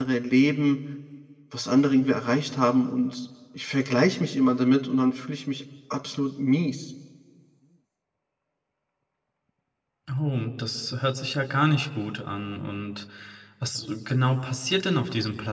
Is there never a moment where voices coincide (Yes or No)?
Yes